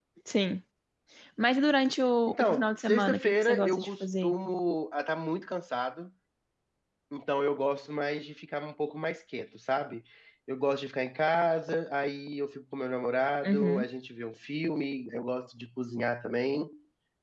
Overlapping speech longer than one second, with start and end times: 2.3-4.3

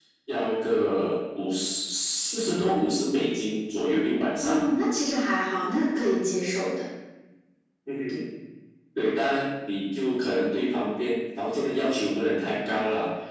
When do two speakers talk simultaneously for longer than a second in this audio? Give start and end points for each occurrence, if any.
none

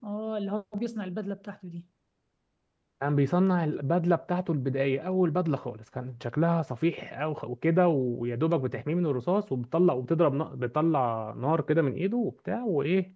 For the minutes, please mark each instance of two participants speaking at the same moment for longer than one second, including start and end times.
none

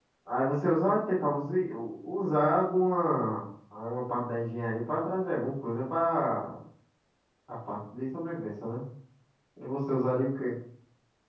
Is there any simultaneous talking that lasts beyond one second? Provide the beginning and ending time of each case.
none

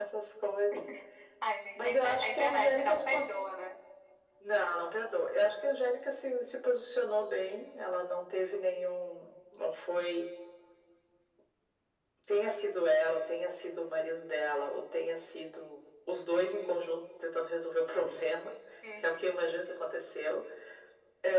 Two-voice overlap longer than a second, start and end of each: 1.8-3.4

